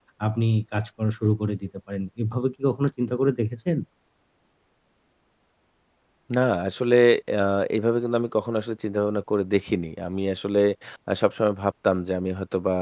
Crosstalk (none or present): none